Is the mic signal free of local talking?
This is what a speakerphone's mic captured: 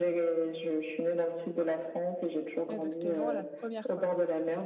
No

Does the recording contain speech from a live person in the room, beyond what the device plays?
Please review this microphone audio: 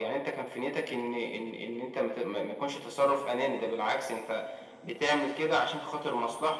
No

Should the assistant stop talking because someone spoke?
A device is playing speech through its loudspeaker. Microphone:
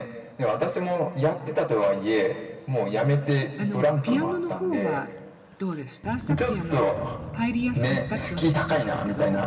Yes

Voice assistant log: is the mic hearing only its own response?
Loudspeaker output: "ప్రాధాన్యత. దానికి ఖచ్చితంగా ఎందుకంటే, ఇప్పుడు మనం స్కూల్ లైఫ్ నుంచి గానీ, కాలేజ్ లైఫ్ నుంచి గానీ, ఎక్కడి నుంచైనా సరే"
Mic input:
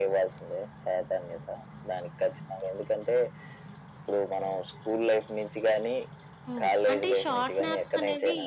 No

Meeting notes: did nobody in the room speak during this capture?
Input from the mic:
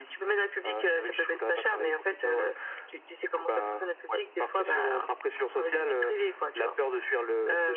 Yes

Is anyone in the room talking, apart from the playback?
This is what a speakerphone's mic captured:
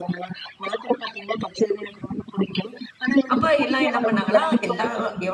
Yes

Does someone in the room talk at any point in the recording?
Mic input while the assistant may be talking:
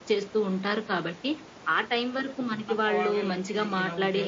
Yes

